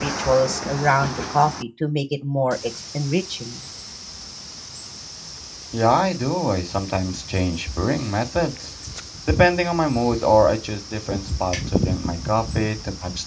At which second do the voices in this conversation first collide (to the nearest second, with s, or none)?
none